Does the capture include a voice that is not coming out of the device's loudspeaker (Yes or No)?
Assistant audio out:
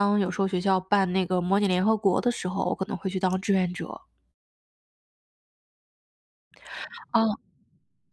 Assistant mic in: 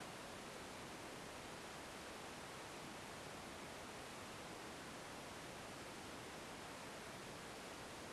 No